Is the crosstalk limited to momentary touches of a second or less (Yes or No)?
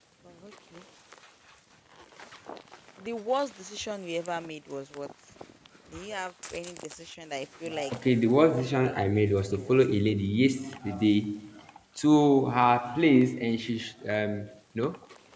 No